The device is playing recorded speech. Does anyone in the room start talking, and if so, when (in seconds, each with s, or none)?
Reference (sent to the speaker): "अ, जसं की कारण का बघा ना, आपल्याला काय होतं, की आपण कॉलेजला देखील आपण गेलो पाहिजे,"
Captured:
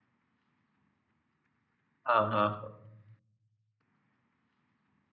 2.1 s